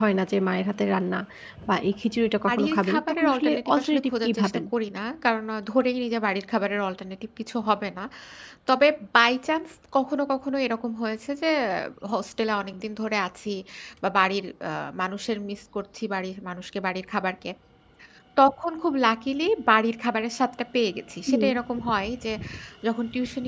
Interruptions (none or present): present